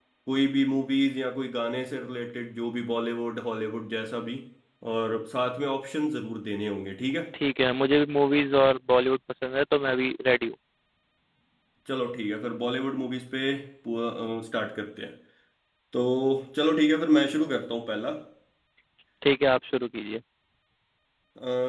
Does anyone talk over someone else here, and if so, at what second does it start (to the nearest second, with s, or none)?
none